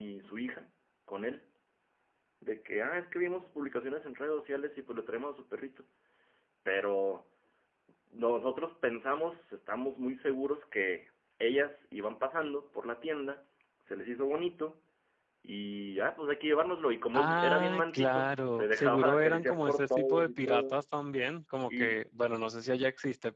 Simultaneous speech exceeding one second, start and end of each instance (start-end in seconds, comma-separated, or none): 17.2-20.8